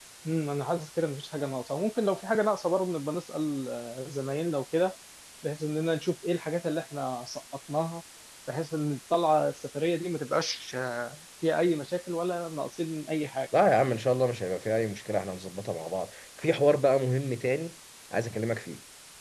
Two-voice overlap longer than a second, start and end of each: none

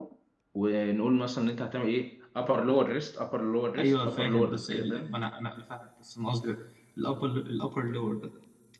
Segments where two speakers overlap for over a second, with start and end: 3.8-5.1

